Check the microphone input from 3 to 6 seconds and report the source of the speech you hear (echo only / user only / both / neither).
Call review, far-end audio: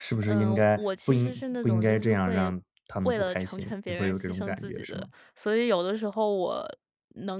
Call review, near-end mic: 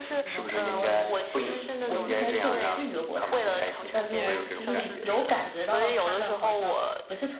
both